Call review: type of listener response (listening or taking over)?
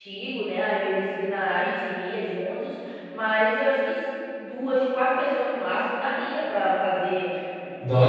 listening